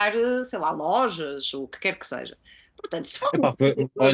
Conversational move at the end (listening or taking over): taking over